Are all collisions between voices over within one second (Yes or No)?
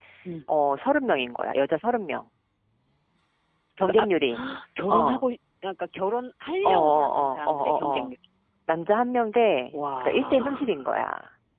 No